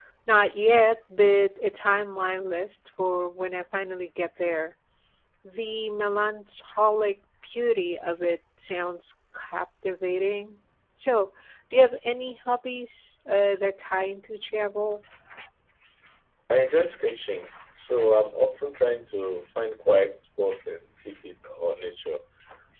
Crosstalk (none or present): none